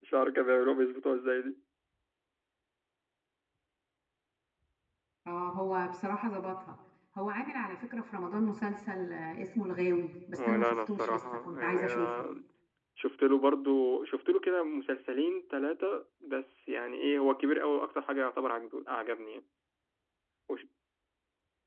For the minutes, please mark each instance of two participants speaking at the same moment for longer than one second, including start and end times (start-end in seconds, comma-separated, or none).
10.4-12.1